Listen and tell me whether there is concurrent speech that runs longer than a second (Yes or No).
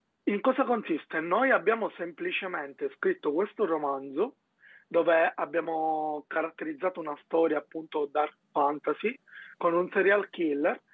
No